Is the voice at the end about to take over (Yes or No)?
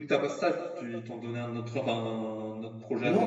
Yes